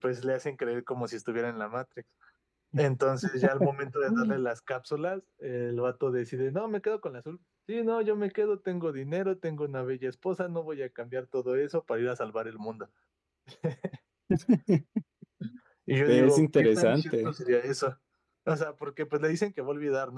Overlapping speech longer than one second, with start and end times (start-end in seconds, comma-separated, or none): 16.1-17.3